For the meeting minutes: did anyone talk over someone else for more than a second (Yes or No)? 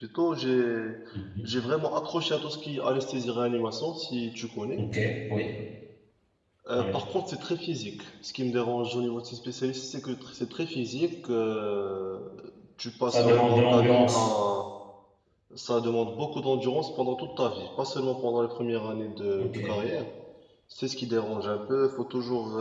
Yes